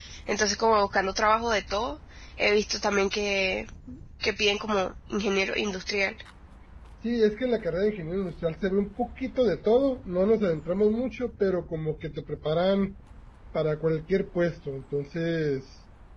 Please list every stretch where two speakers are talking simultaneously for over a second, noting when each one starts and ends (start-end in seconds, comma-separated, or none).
none